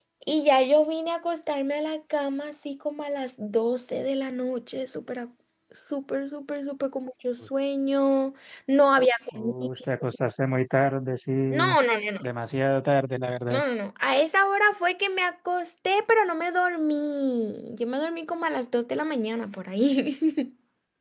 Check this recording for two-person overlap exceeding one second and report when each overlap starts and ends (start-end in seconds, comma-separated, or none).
none